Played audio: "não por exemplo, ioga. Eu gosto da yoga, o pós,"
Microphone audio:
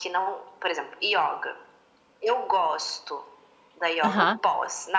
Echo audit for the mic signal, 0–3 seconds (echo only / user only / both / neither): echo only